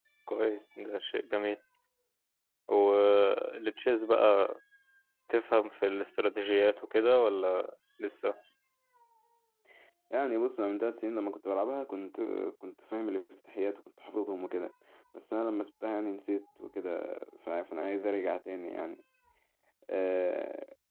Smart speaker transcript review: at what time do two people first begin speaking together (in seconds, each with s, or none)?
none